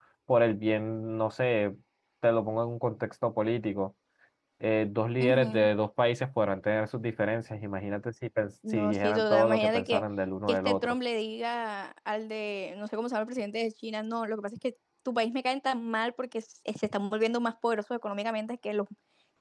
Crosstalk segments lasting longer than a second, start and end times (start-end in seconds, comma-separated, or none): 8.7-10.0